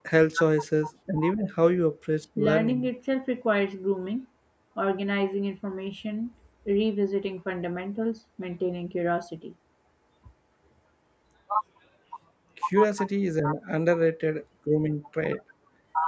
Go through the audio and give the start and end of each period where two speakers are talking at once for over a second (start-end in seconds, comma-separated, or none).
none